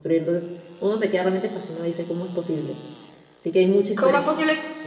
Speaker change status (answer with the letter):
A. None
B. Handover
B